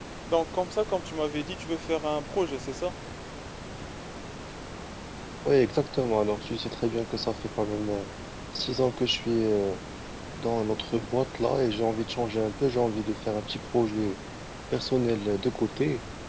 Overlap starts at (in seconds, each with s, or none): none